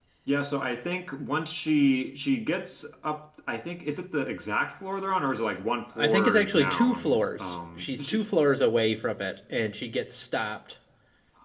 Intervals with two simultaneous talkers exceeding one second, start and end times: 6.0-8.2

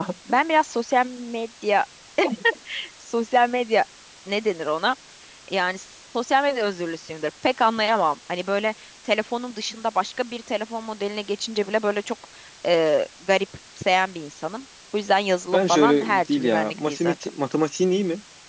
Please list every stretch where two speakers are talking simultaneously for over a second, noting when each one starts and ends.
15.5-17.1

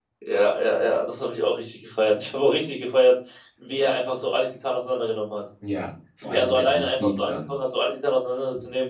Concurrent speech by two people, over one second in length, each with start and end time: 6.2-7.5

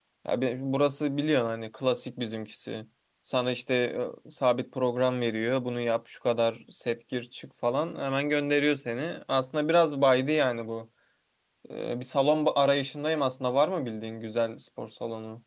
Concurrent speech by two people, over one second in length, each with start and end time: none

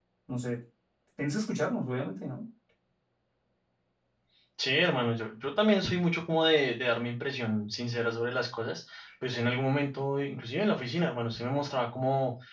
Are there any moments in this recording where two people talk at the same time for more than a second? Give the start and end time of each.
none

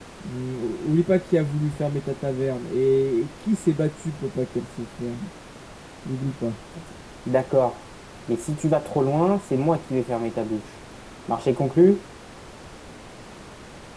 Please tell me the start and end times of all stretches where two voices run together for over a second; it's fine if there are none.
none

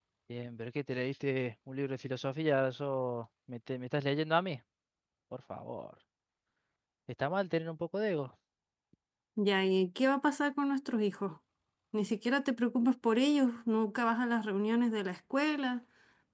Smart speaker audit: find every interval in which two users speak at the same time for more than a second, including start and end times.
none

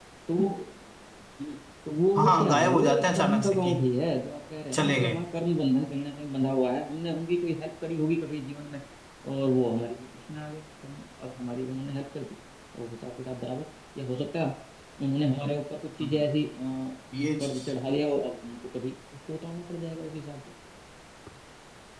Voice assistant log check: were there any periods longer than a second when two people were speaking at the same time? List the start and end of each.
2.1-3.7

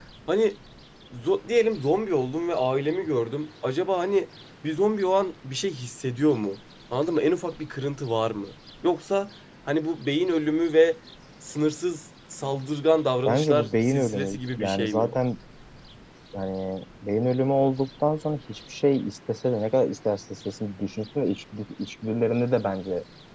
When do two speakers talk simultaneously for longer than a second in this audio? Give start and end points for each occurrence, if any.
13.3-15.1

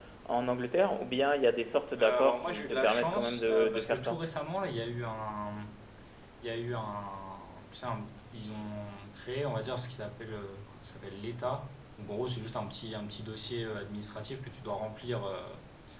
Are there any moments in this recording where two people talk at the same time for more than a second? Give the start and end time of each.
2.0-4.2

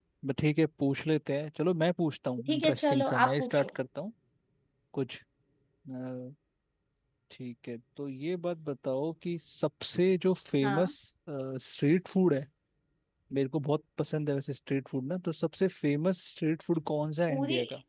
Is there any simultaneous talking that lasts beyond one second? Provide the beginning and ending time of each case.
2.5-3.7

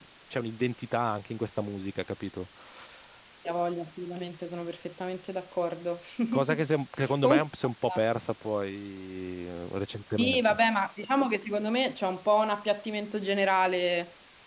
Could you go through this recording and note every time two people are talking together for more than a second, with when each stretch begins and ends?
none

